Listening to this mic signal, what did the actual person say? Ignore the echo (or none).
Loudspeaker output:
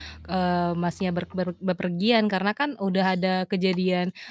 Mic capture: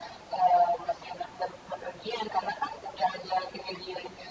none